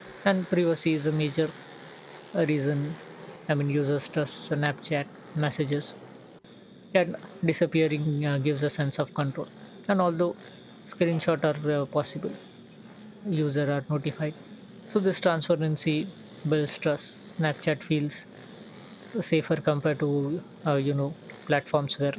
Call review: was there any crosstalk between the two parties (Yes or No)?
No